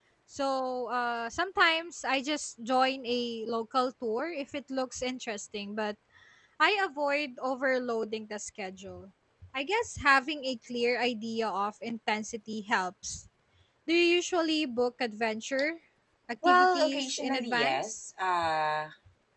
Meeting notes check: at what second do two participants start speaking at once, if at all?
16.5 s

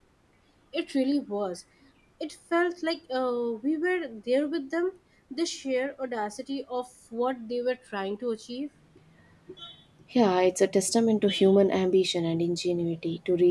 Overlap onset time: none

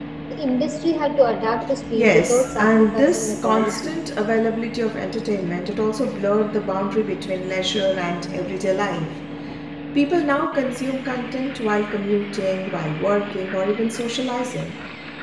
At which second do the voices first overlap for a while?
1.9 s

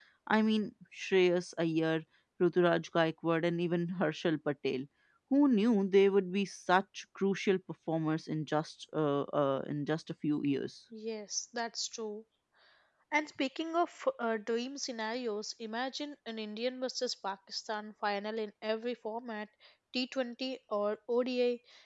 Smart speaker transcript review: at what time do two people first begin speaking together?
none

